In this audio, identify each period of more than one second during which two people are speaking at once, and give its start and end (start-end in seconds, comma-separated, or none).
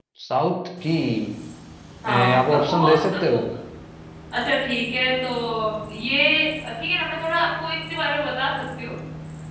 2.1-3.4